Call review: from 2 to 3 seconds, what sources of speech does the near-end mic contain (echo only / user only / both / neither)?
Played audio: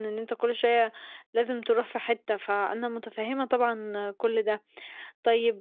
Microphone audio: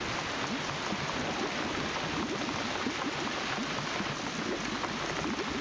neither